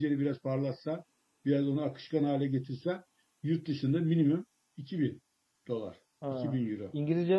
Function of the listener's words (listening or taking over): taking over